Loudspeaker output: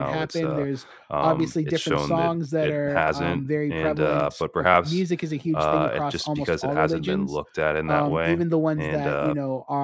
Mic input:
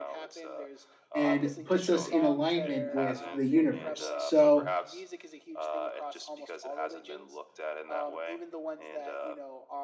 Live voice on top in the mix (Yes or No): Yes